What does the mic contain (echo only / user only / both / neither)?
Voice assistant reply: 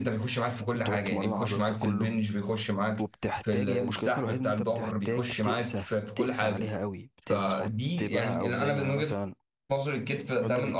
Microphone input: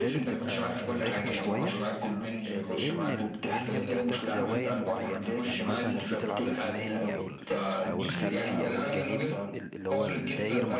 both